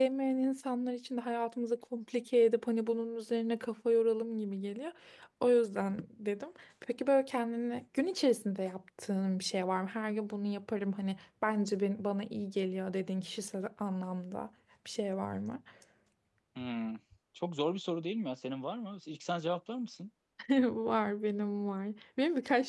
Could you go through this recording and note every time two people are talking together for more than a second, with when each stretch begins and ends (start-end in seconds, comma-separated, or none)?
none